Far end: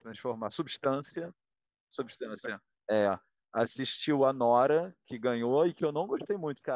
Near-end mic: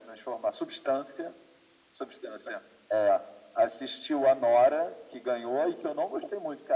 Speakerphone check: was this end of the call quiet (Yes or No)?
Yes